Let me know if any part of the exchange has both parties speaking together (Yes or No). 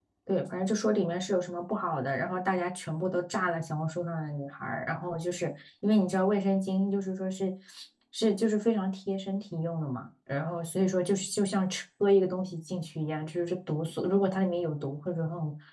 No